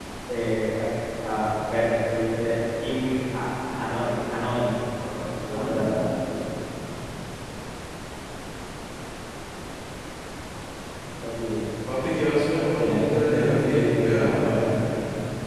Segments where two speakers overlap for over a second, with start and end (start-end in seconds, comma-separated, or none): 12.8-14.7